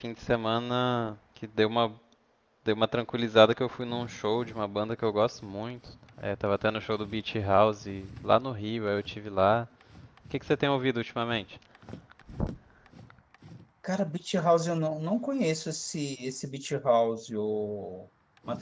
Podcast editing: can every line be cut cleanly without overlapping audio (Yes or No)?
Yes